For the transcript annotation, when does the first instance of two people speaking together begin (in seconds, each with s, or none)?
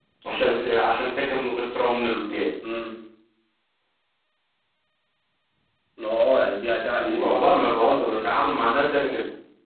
7.0 s